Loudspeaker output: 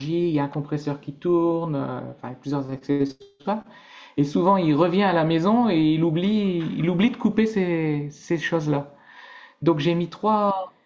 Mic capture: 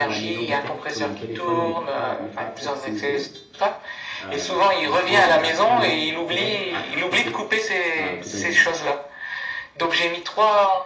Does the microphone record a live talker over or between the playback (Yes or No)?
Yes